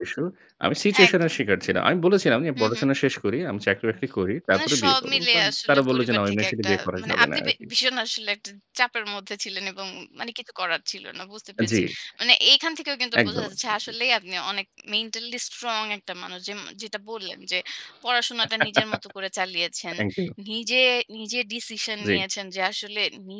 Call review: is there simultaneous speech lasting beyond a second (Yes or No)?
Yes